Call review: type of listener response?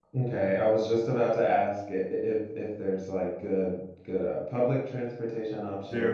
taking over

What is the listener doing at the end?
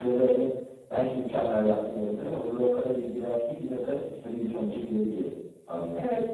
taking over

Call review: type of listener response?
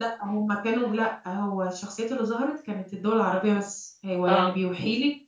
listening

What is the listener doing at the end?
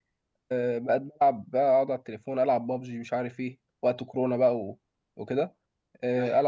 listening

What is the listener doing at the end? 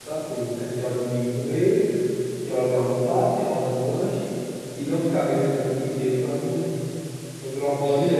taking over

